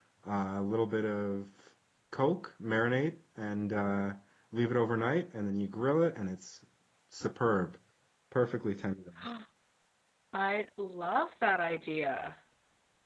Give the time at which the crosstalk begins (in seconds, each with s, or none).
none